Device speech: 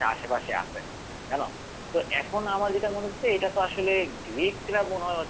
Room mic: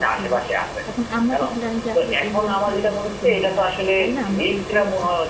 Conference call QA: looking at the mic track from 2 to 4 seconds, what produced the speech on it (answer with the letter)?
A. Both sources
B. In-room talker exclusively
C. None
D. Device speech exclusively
A